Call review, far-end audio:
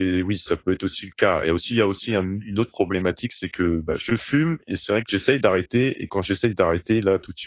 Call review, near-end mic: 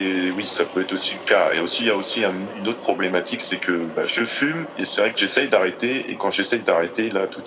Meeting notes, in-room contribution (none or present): none